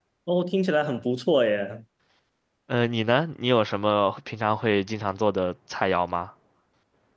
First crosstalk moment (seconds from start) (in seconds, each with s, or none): none